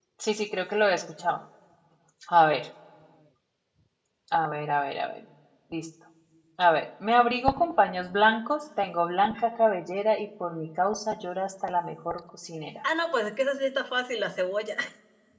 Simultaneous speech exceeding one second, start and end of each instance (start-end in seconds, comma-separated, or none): none